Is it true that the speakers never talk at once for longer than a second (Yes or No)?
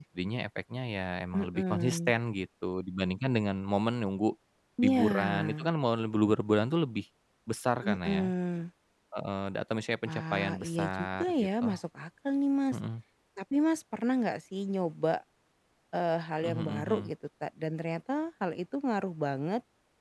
No